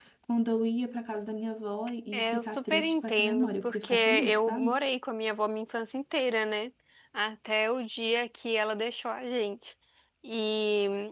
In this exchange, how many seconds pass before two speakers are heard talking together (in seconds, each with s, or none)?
2.1 s